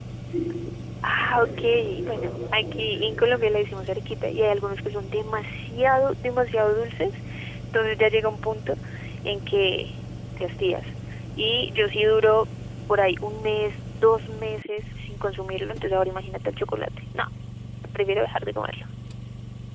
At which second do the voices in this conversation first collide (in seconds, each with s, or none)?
1.1 s